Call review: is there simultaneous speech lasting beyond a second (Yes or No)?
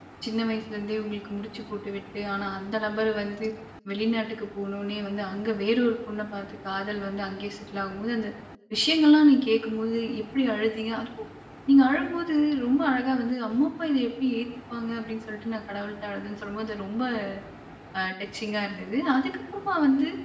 No